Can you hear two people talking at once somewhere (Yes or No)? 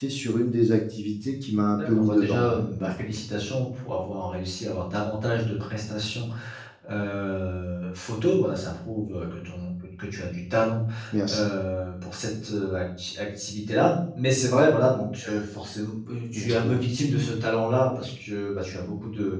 Yes